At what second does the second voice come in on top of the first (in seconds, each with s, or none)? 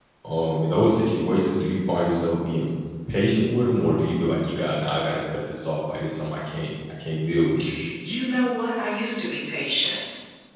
none